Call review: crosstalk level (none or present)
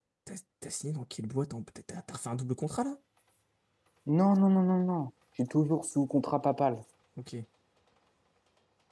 none